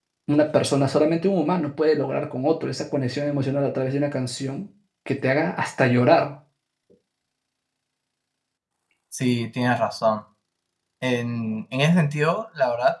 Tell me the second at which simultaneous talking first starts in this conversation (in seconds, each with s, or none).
none